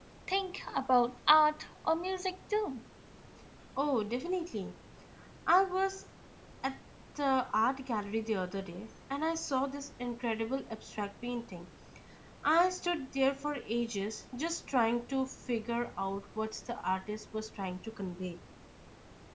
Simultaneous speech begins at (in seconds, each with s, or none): none